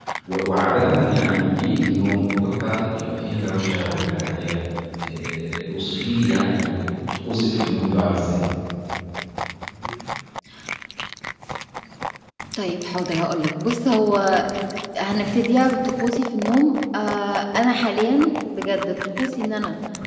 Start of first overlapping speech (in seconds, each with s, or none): none